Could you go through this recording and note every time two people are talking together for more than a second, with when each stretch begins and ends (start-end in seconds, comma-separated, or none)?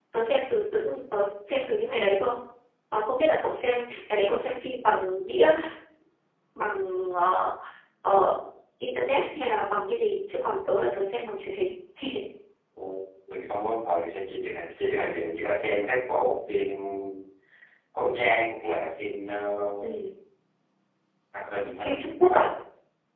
none